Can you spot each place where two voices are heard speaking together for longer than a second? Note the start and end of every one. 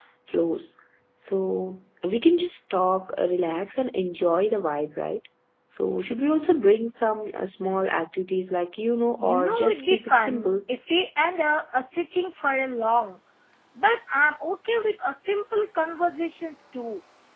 9.2-10.5

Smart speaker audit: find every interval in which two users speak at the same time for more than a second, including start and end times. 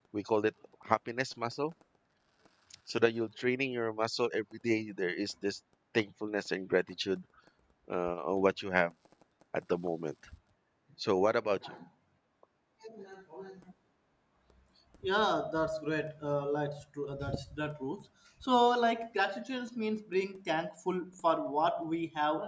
none

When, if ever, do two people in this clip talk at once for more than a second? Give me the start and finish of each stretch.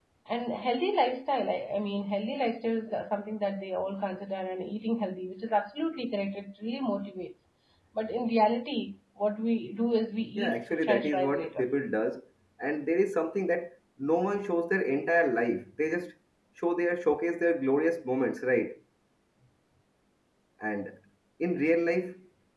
10.4-11.6

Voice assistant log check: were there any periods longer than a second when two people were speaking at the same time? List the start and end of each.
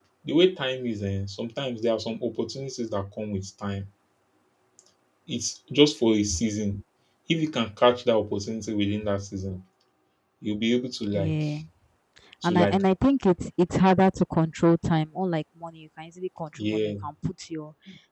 none

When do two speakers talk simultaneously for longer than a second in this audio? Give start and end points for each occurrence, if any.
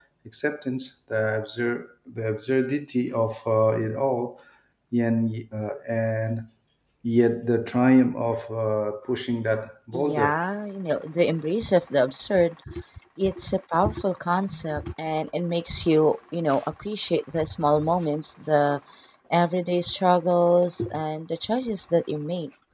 none

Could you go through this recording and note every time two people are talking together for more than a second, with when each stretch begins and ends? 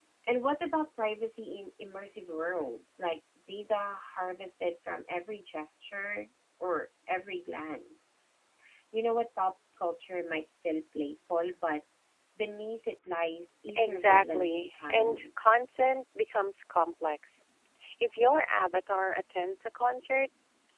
13.8-15.3

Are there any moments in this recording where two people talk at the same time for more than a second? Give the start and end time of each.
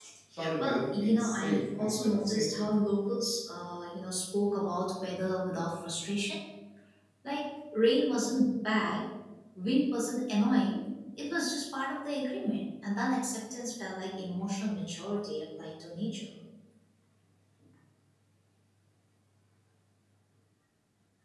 0.6-2.7

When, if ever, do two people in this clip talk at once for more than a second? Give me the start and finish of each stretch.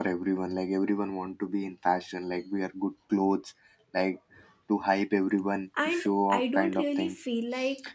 5.8-7.2

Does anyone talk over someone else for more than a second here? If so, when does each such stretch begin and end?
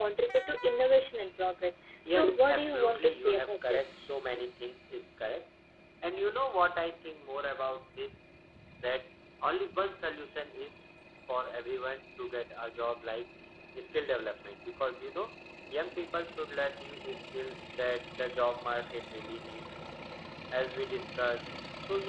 2.1-4.0

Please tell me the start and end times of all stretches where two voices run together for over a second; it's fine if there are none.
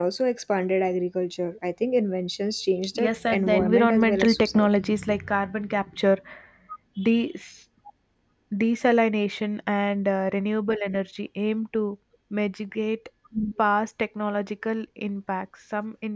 3.0-4.7

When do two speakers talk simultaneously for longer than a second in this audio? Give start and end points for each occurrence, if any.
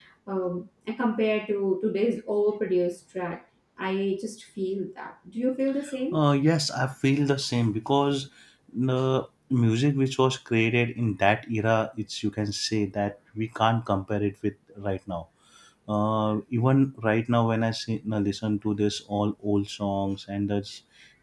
none

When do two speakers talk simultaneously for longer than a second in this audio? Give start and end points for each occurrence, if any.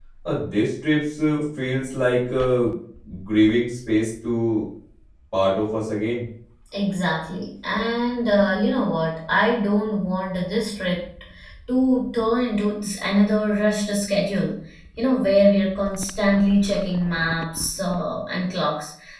none

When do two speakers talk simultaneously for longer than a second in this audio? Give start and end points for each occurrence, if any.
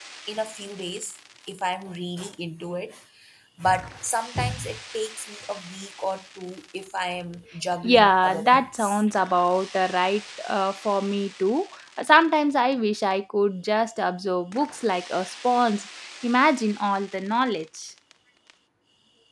7.8-9.0

